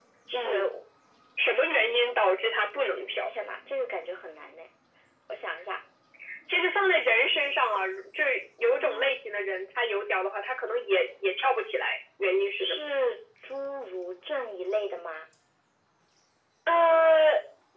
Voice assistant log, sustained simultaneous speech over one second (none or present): none